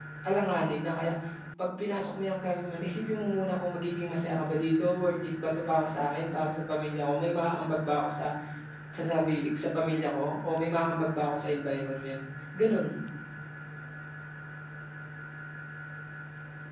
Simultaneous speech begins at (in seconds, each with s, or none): none